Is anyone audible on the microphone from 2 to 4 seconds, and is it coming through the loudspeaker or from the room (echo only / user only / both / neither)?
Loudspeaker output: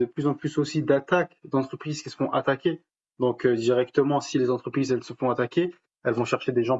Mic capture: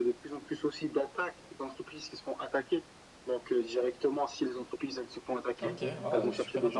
echo only